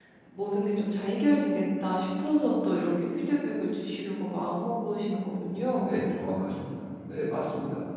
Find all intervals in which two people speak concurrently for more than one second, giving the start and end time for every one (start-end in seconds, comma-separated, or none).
none